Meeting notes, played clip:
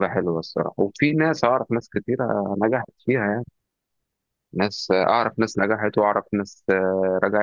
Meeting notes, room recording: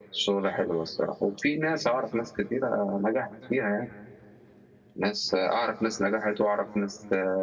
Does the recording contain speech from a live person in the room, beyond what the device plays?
No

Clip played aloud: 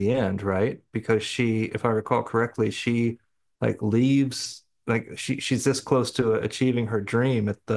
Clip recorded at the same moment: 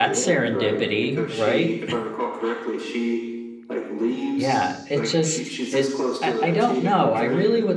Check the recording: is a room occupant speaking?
Yes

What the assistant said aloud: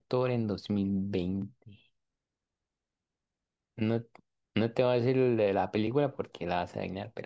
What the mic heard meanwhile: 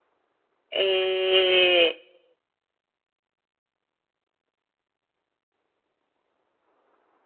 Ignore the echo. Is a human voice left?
Yes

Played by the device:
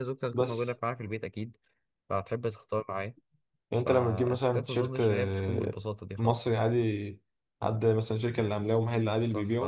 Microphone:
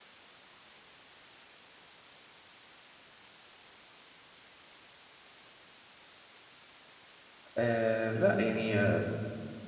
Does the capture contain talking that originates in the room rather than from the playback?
Yes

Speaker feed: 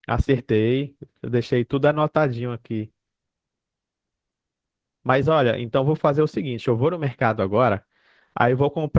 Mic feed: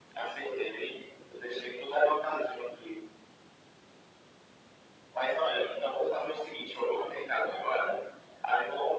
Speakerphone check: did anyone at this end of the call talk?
No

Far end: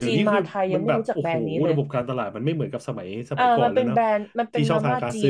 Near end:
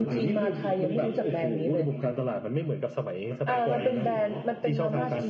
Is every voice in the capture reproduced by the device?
No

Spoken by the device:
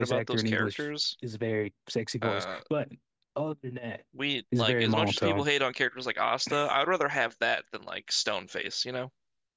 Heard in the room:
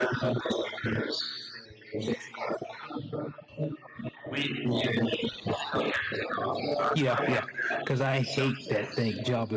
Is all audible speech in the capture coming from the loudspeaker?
No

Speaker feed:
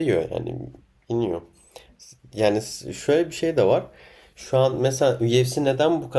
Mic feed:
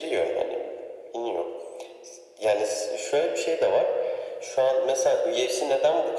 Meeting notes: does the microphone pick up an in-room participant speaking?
No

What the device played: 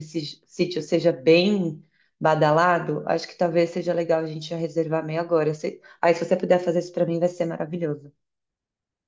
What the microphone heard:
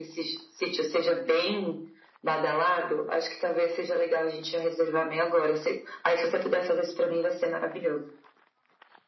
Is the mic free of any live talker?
Yes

